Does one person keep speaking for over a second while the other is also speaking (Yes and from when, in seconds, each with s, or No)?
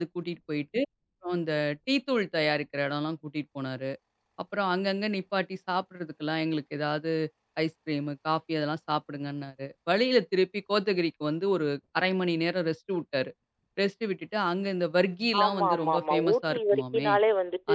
Yes, from 15.3 s